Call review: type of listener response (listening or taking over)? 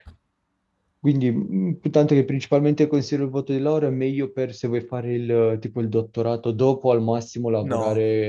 listening